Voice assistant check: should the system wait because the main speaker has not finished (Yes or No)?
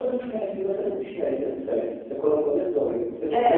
No